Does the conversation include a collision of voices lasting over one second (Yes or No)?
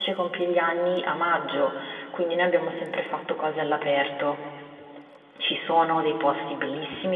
No